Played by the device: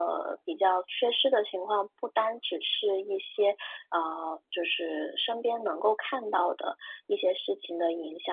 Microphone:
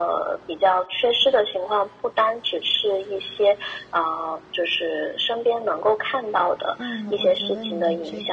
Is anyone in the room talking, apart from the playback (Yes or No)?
Yes